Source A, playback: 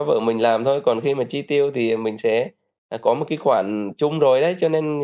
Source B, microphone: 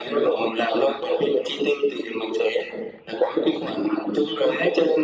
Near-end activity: none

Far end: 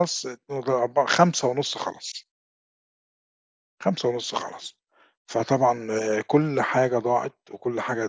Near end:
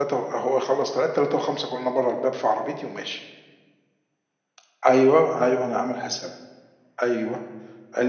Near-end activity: present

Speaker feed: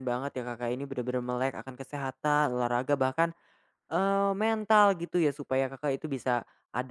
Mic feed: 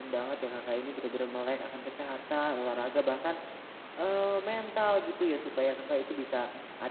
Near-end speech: none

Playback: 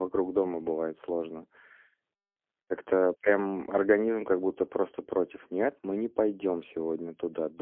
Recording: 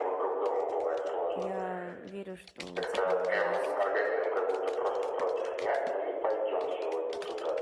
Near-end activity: present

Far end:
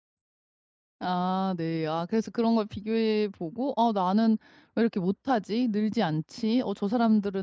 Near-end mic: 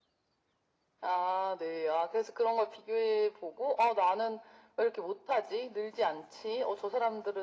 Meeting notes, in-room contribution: none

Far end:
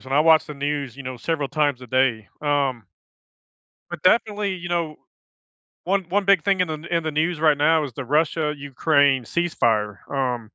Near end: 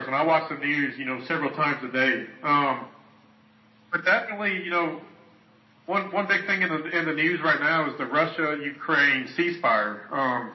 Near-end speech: none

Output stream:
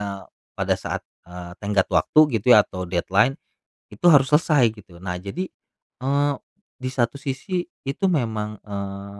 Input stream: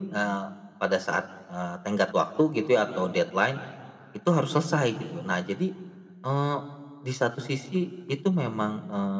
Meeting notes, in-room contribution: none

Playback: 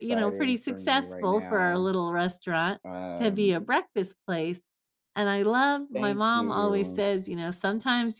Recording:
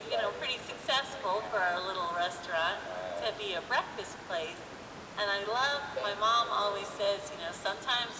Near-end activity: none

